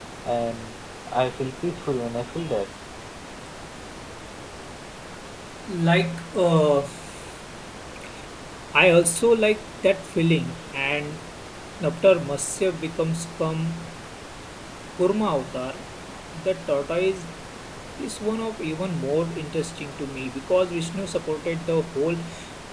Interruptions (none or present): none